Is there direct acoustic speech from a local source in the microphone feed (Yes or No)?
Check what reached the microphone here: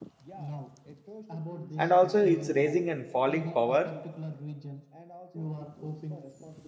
Yes